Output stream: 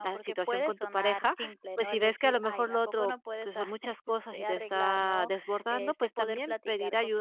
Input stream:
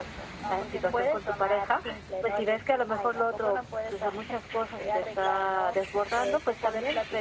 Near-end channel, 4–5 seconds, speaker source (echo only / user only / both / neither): echo only